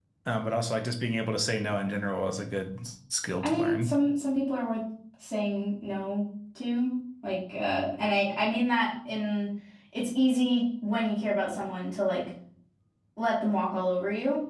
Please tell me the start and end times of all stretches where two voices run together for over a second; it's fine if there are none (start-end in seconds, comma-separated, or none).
none